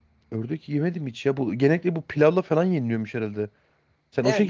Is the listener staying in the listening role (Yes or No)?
No